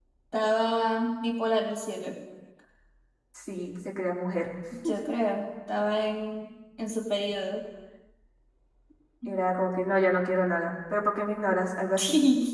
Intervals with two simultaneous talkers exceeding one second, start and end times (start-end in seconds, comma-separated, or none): none